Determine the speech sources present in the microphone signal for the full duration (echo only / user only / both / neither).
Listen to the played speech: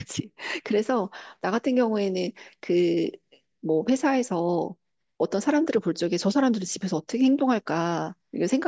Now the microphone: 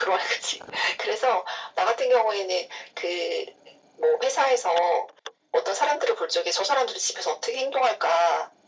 echo only